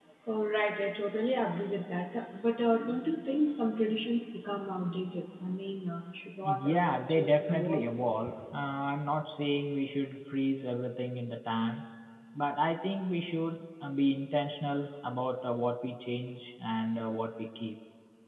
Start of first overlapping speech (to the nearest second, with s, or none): 6 s